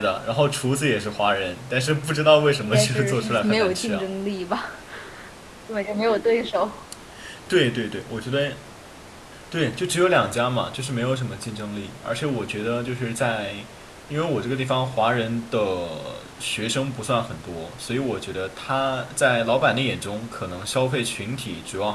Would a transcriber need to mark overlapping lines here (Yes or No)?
Yes